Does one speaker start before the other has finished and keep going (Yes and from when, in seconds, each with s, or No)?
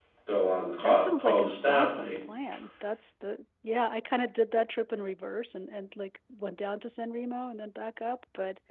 Yes, from 0.8 s